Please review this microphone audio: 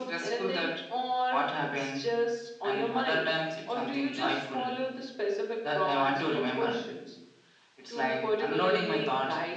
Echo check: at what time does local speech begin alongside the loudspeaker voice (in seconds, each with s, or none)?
none